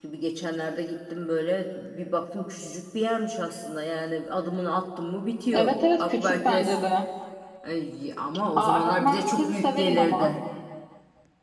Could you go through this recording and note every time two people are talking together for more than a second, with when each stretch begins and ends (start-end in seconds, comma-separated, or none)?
5.5-6.8, 8.6-10.3